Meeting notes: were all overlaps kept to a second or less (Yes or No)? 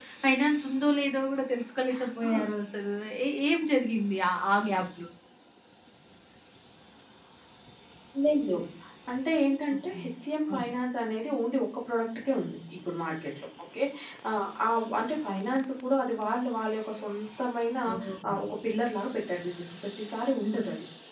Yes